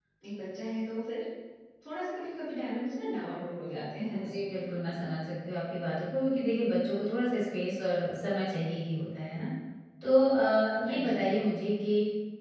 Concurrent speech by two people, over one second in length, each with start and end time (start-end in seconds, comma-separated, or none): none